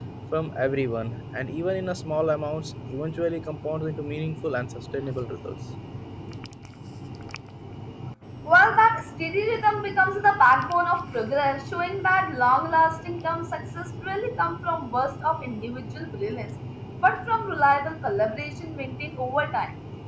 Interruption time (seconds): none

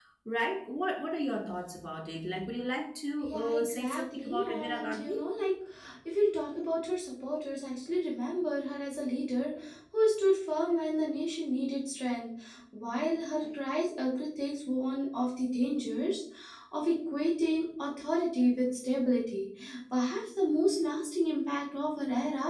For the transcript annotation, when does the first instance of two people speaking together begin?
3.2 s

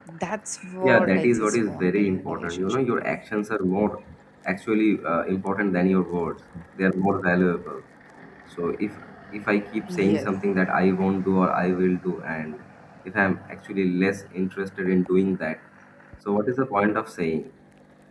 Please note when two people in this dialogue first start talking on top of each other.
0.8 s

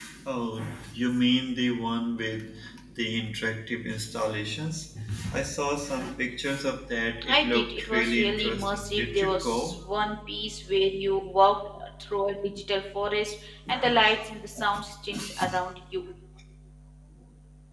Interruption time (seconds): 7.3 s

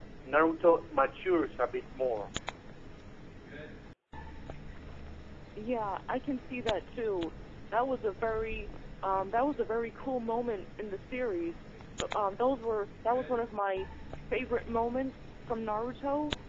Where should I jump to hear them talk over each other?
none

